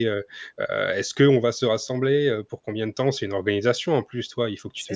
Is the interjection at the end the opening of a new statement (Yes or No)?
No